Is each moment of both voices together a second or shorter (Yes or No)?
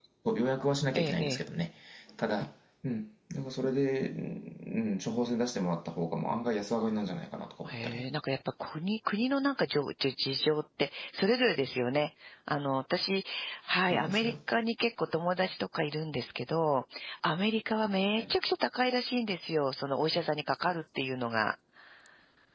Yes